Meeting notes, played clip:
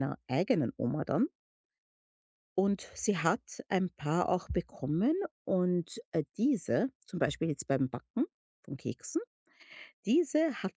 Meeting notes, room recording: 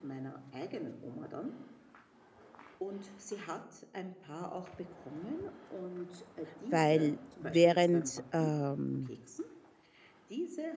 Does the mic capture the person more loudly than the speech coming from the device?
Yes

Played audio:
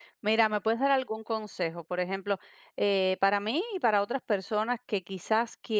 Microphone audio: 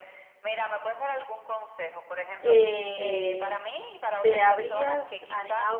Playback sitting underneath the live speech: Yes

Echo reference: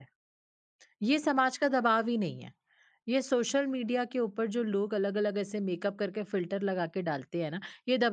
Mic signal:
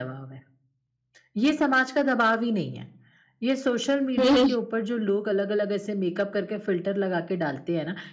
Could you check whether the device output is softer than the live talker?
Yes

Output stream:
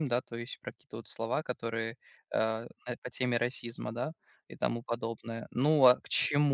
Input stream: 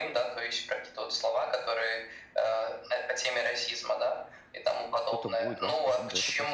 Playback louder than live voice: Yes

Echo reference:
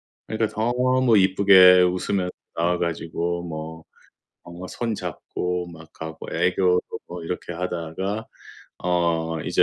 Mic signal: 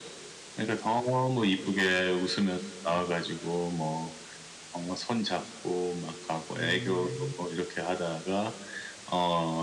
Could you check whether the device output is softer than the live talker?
No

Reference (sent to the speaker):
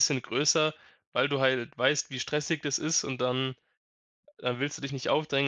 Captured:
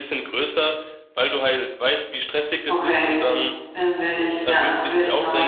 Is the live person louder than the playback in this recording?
Yes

